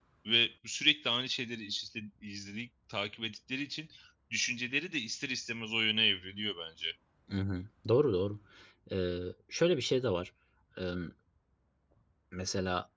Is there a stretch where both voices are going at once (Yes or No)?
No